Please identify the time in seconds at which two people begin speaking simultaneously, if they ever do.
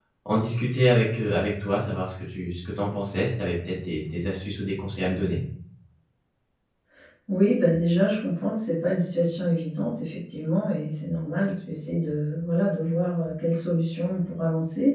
none

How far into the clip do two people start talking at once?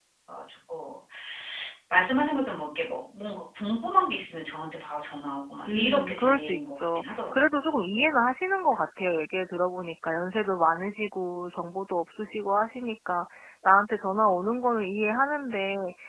5.7 s

